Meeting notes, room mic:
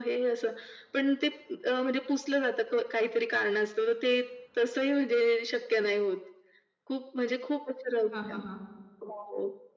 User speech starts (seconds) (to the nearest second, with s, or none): 8 s